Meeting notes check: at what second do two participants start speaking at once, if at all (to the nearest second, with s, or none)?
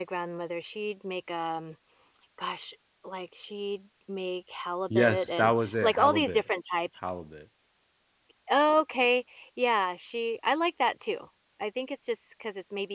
5 s